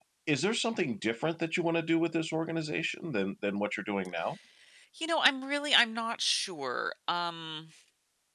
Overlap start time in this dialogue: none

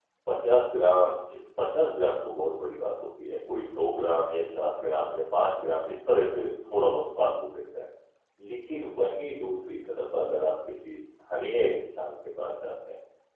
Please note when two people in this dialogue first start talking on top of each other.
none

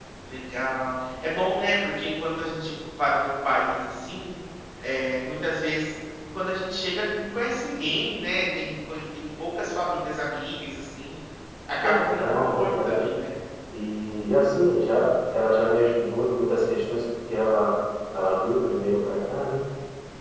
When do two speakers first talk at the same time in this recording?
11.8 s

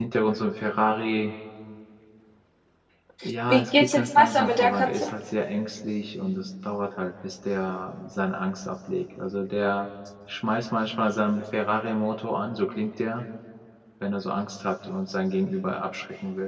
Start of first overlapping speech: 3.5 s

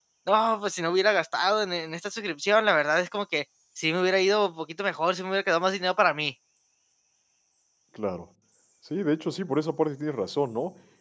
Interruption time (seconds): none

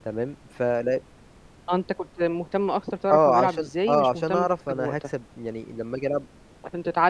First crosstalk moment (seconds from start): 3.1 s

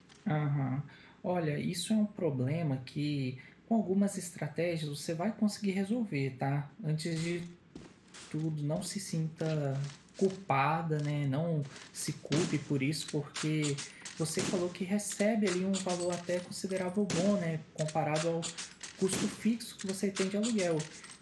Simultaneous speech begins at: none

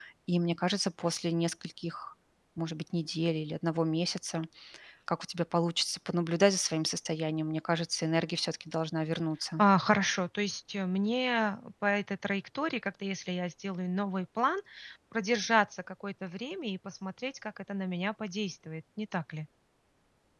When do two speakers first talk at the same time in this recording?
none

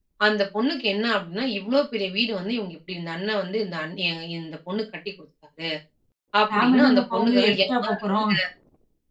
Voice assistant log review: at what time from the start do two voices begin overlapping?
6.5 s

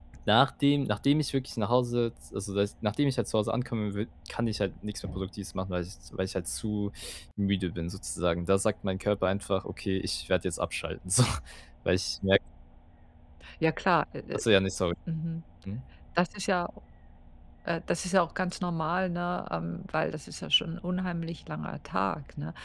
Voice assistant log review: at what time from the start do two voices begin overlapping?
none

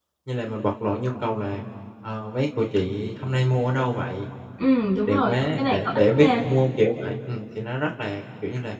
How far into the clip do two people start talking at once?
5.1 s

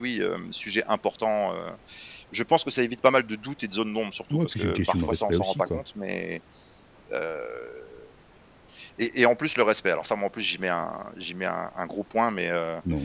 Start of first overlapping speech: 4.3 s

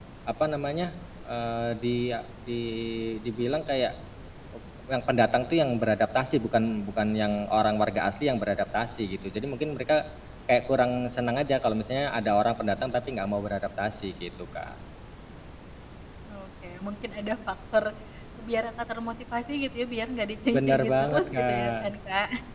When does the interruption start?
20.5 s

